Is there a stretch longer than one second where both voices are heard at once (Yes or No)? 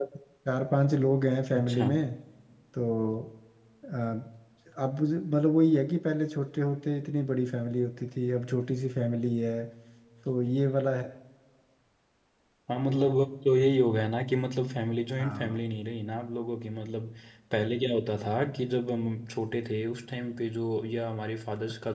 No